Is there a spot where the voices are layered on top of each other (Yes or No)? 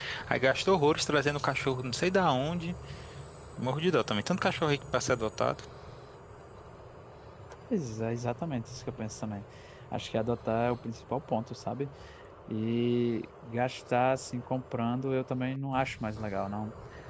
No